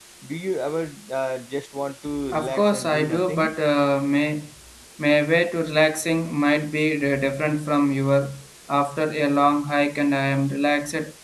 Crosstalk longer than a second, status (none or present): present